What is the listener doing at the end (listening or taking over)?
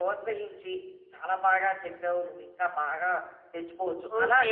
taking over